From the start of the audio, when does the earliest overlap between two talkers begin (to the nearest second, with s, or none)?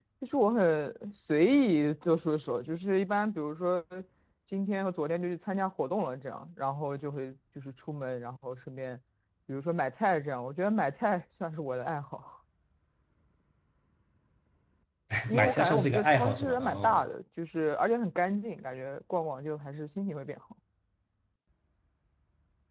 15 s